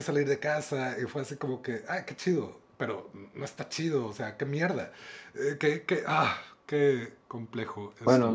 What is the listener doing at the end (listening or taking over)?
taking over